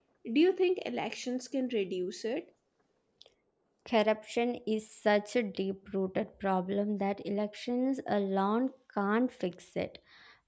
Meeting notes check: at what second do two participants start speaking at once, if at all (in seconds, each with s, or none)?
none